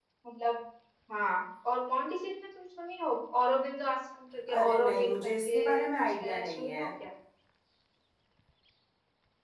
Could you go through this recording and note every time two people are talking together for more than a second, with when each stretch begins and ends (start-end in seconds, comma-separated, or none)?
4.6-6.8